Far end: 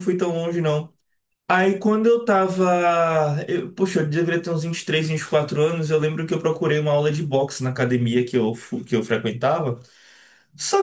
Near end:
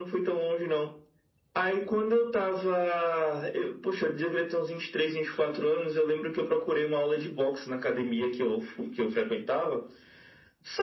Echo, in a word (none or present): present